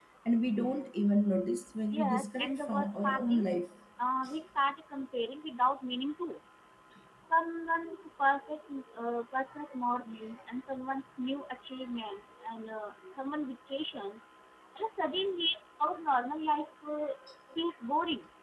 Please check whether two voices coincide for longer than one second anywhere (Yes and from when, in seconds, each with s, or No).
Yes, from 1.9 s